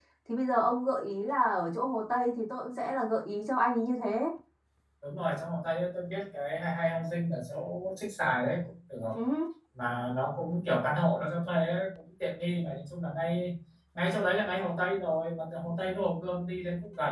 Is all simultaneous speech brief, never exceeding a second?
Yes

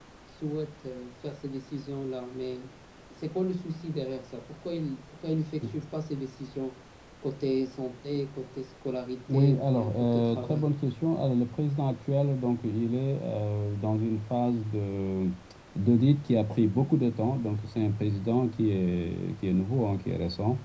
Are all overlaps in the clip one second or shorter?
No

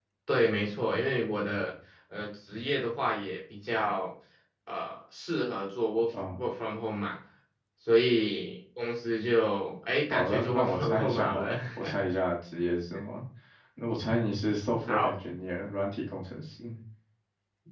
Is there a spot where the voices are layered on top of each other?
Yes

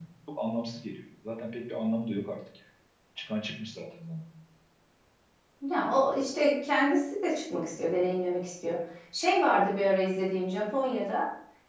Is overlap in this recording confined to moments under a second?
Yes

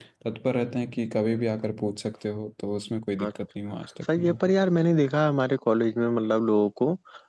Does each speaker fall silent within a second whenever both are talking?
Yes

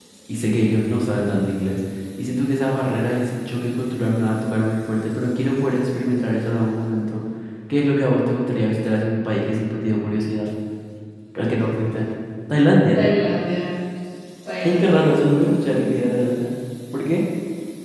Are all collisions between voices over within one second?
No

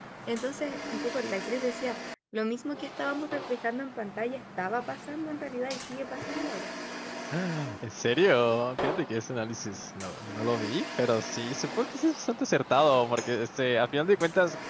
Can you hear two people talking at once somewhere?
No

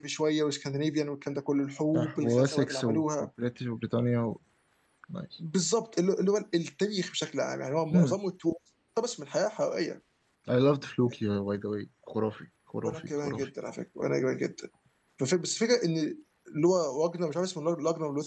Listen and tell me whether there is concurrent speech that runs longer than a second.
Yes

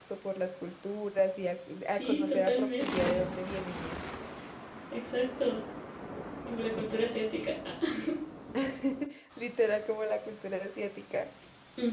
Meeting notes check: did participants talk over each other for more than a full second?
Yes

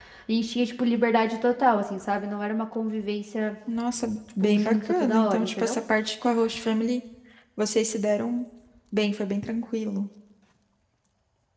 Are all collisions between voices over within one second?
No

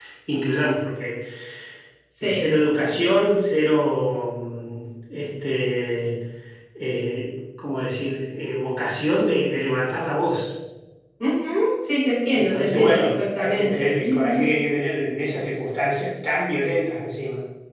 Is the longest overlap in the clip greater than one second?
Yes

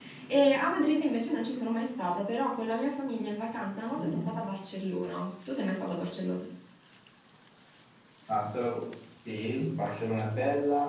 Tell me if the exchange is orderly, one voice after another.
Yes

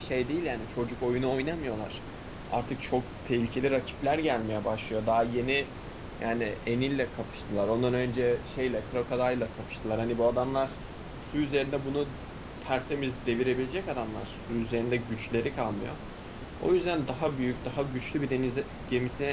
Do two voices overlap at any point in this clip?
No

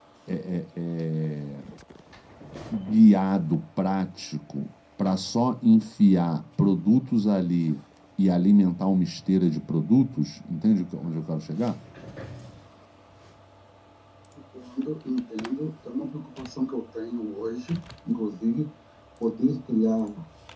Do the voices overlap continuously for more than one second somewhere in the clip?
No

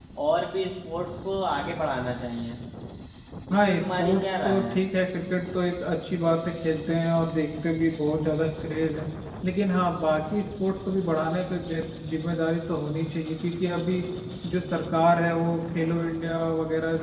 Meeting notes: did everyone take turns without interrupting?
No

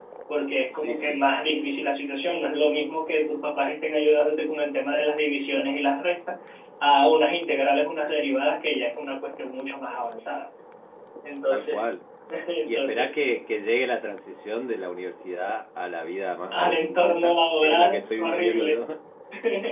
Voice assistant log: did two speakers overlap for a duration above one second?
Yes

